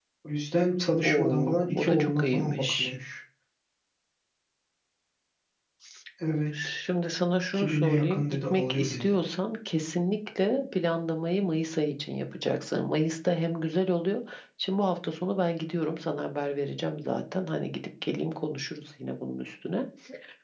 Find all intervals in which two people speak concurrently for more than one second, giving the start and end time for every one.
1.0-2.9, 7.5-9.0

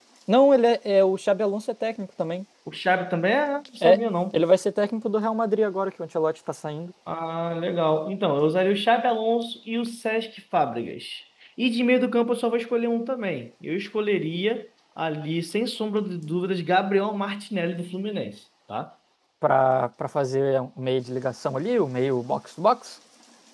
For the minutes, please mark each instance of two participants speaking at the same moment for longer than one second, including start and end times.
none

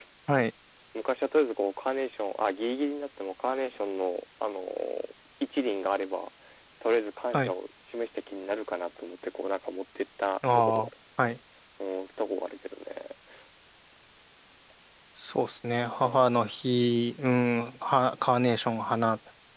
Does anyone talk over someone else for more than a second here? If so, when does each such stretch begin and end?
none

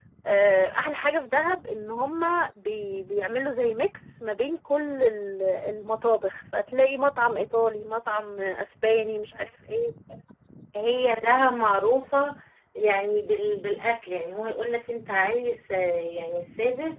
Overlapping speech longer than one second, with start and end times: none

